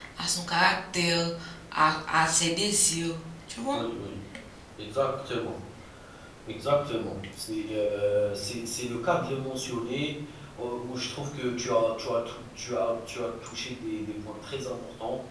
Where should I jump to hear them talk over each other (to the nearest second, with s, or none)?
none